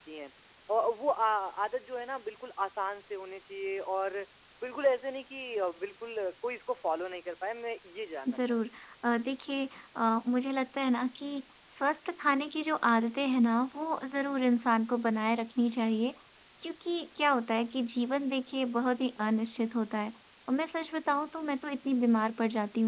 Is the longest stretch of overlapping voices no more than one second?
Yes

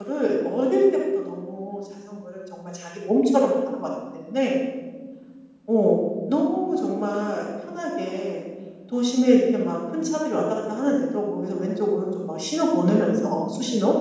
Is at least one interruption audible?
No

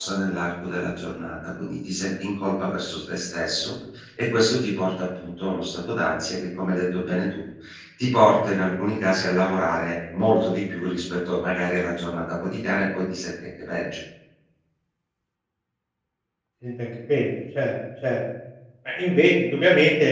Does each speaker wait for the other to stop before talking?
Yes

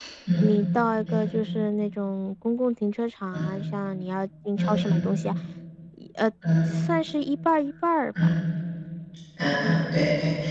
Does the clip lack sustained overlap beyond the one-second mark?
Yes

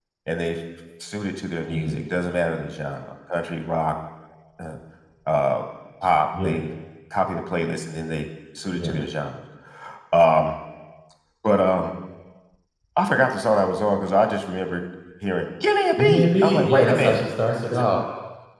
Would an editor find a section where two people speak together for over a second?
Yes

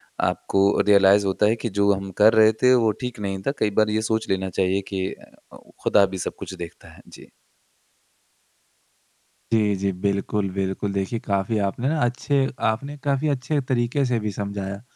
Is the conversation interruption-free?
Yes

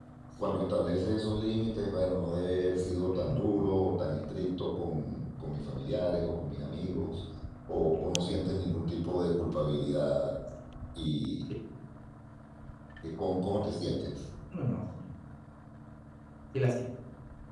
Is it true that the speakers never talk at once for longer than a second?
Yes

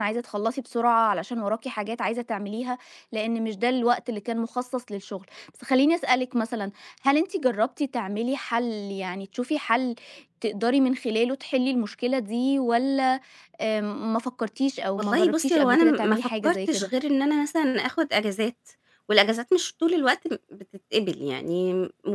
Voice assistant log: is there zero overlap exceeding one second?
No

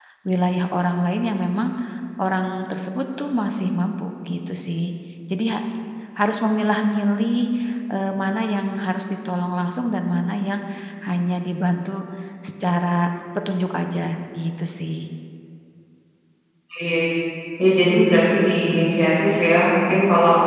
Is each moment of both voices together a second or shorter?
Yes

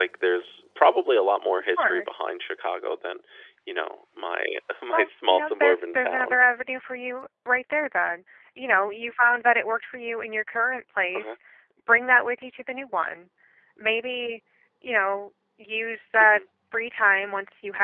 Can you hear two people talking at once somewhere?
Yes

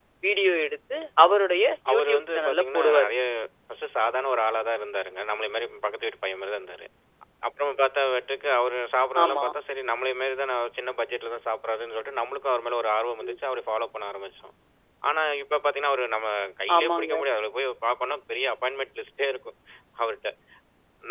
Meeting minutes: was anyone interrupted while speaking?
Yes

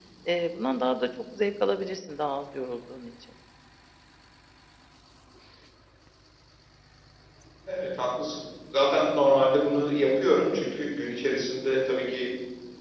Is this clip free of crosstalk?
Yes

